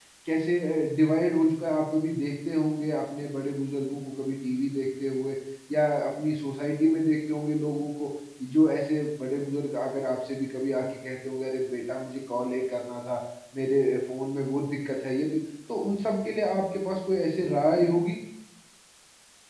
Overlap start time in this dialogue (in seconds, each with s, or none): none